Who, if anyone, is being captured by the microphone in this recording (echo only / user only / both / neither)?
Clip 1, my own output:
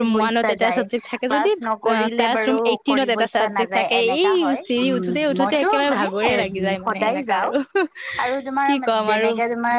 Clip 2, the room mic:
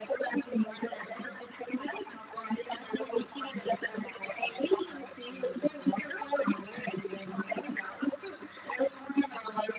echo only